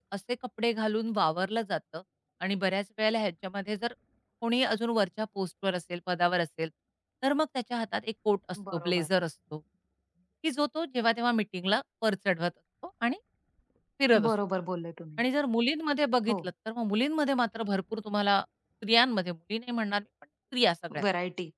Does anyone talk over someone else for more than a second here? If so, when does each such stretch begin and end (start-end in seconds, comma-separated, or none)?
none